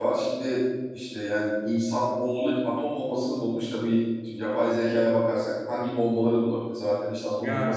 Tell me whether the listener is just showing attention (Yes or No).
Yes